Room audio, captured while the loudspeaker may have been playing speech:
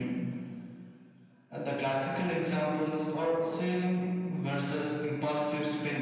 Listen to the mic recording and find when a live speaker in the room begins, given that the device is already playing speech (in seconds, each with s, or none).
none